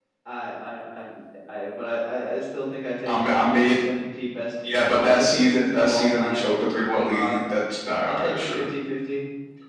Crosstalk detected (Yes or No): Yes